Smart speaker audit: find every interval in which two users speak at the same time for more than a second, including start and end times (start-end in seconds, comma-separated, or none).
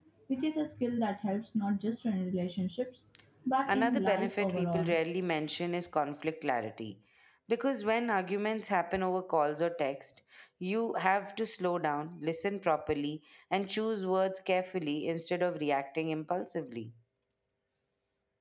3.7-5.0